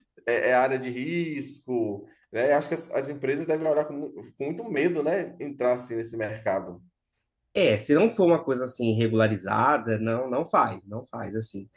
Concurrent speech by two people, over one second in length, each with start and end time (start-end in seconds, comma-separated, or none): none